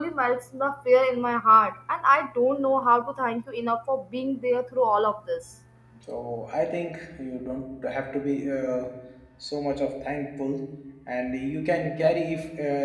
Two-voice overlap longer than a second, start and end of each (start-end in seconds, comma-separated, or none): none